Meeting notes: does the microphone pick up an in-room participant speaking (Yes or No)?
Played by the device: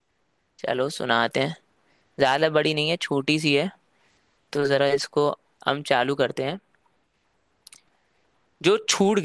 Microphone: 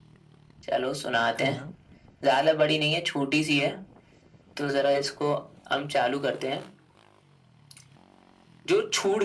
Yes